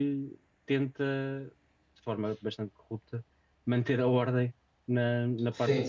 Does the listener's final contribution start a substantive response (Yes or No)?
Yes